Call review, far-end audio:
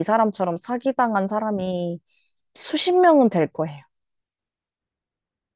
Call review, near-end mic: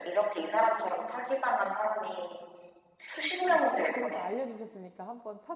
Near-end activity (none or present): present